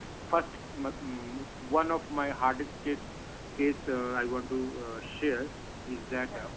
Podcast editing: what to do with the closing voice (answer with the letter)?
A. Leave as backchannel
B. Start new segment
A